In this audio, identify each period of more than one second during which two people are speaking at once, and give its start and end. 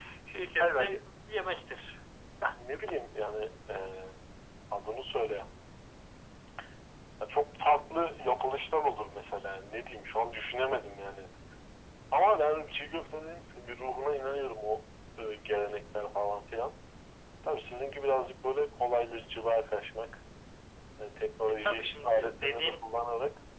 21.5-22.8

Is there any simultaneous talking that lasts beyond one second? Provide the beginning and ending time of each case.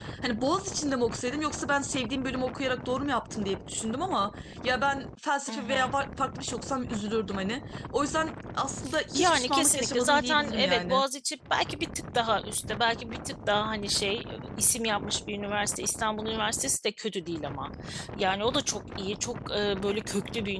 9.1-11.0

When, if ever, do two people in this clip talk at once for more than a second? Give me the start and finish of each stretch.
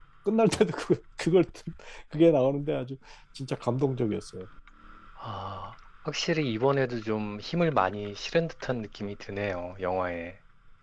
none

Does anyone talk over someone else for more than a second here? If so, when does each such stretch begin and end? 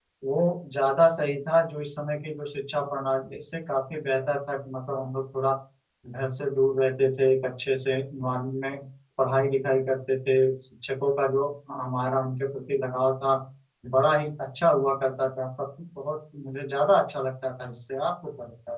none

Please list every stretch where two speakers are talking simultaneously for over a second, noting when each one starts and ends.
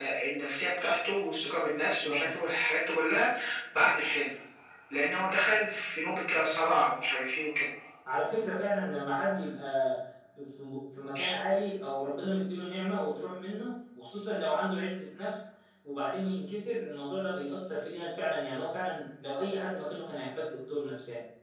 none

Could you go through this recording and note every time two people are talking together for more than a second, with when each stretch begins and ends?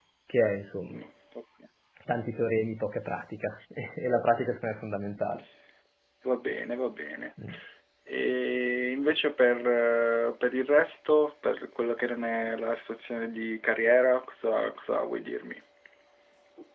none

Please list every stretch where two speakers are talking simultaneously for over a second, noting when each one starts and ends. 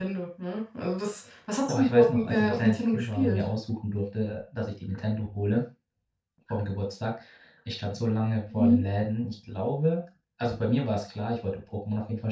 1.7-3.4

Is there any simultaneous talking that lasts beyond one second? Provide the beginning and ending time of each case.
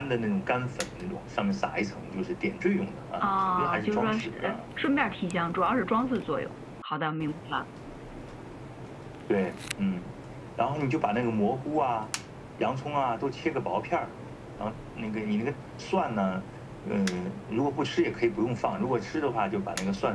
3.2-4.6

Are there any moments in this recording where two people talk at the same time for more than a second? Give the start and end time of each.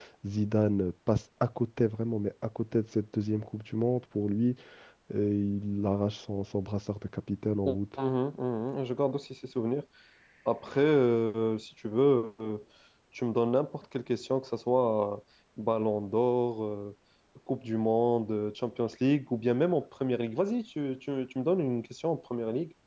none

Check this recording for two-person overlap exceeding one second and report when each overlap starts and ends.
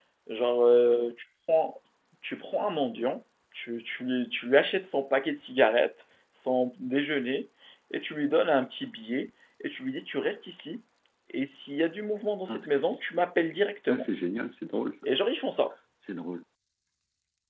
none

